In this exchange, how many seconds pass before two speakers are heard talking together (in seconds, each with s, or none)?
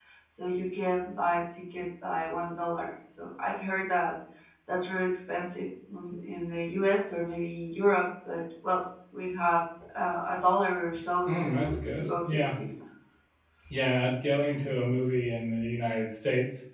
11.3 s